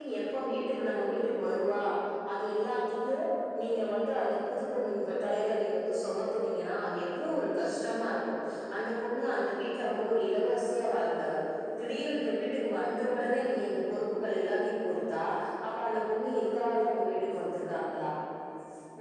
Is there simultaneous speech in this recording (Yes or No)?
No